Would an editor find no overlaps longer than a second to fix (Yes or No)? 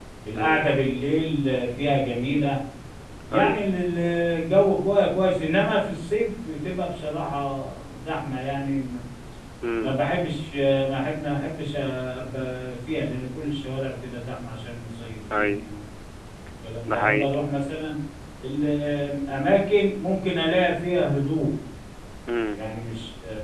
Yes